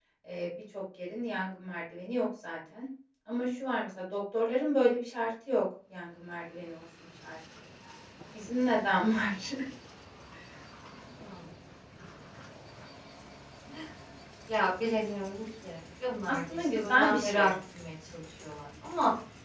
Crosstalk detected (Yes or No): Yes